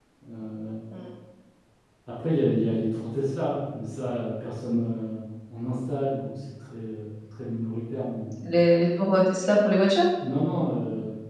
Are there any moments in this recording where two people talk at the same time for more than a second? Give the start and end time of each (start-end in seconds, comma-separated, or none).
none